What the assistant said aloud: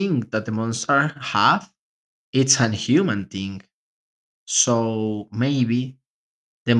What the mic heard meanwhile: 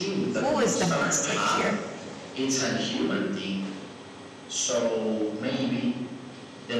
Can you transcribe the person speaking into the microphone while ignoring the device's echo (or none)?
who is the monster here